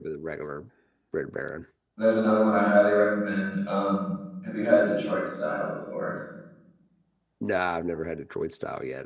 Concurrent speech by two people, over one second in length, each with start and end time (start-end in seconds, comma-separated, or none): none